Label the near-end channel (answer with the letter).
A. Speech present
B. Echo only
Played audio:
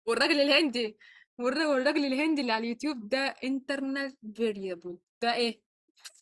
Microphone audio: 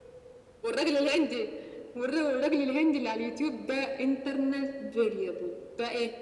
B